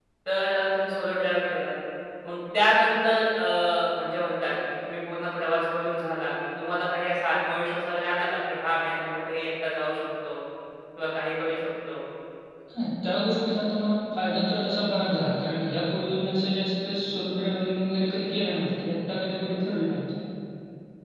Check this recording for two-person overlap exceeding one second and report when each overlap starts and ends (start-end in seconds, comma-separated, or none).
none